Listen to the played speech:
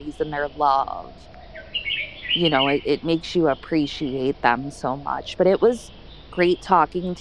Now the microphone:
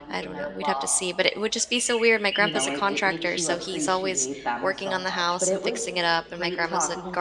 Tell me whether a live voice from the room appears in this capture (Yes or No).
Yes